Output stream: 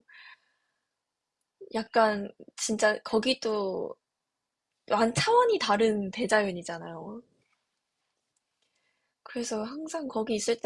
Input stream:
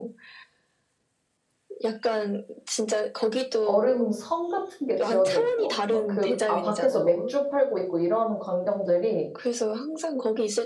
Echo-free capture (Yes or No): No